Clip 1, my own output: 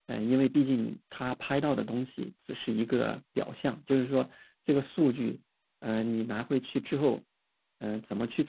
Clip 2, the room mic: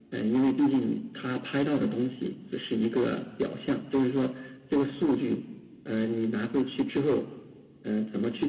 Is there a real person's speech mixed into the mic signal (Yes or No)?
No